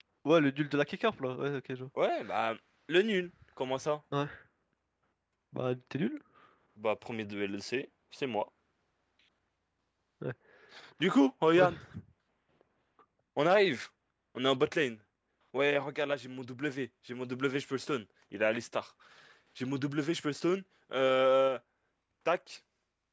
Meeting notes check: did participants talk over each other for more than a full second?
No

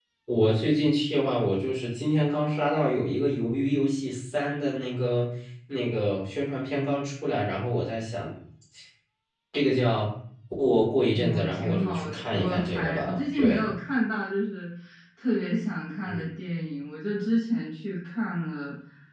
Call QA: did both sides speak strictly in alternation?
No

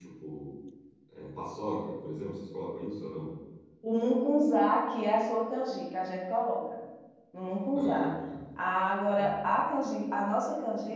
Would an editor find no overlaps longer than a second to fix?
Yes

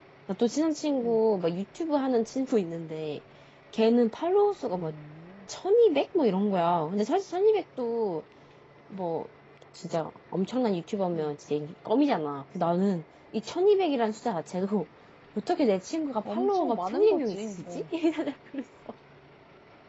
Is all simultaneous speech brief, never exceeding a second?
No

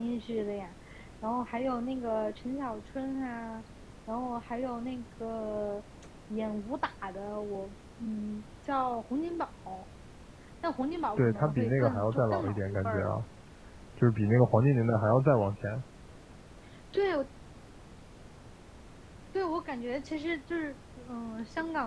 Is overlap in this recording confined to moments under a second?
No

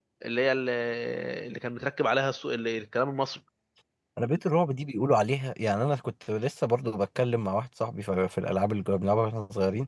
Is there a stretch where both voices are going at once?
No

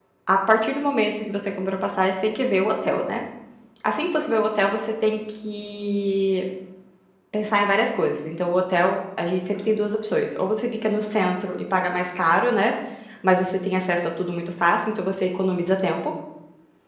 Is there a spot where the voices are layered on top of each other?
No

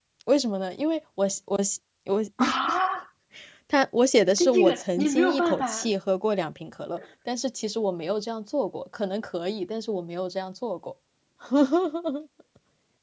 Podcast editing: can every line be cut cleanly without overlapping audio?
No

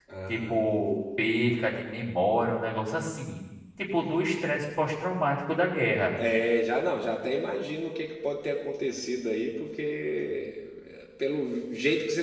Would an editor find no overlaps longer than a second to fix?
Yes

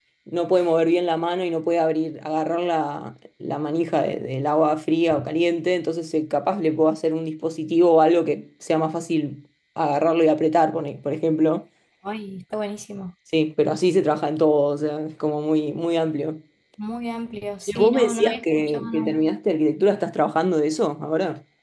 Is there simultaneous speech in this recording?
Yes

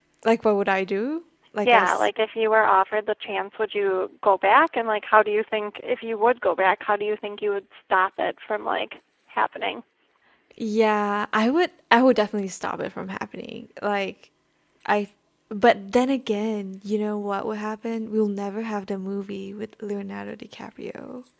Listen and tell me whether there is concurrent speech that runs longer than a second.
No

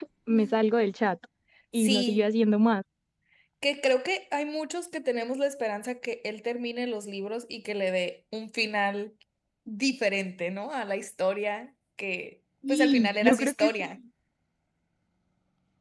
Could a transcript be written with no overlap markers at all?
No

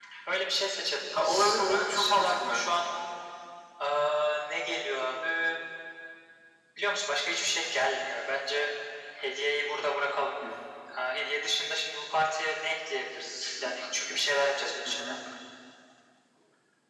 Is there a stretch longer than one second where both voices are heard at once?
Yes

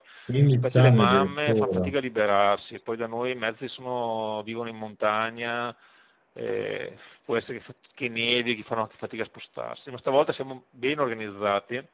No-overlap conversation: No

